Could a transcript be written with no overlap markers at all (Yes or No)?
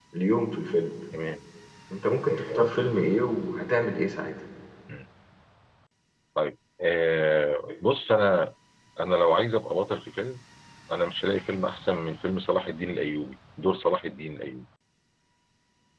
Yes